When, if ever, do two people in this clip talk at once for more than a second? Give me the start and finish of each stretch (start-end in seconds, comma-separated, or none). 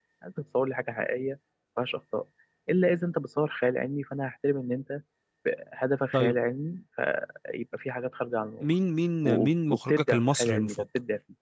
9.2-10.8